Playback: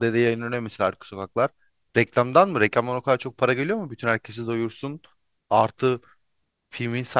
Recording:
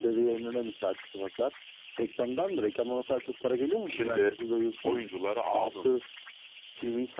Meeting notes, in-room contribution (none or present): present